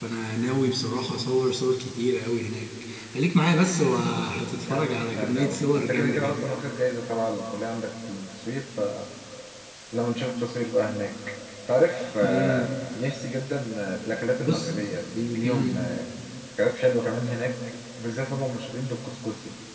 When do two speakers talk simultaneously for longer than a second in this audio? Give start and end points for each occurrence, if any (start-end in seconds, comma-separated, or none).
4.7-6.4